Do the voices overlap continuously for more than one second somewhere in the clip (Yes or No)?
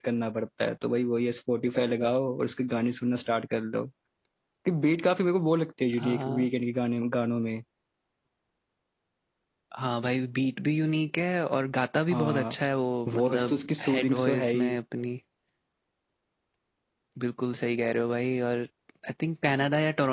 Yes